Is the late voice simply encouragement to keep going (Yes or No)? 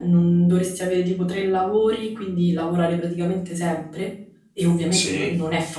Yes